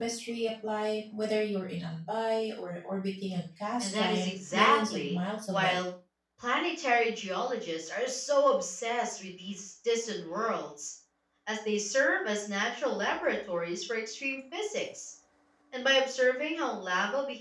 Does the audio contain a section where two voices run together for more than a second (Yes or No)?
Yes